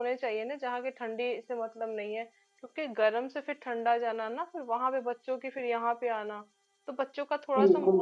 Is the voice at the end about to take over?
No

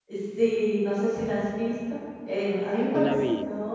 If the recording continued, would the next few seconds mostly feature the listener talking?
No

